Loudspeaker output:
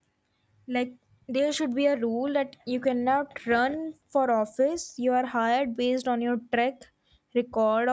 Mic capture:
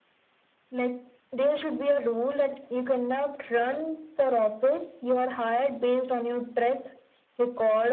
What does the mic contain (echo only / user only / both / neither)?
echo only